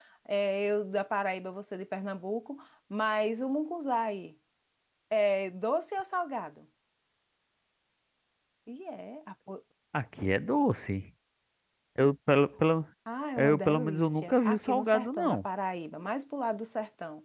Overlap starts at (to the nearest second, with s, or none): 13 s